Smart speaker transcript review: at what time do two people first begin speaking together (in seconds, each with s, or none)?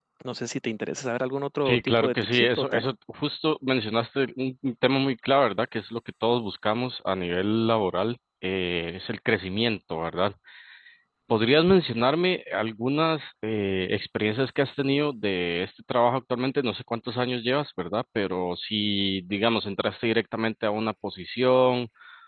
1.6 s